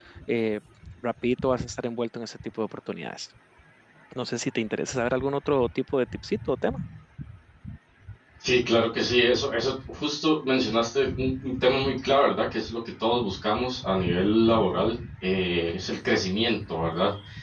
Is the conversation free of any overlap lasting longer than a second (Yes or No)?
Yes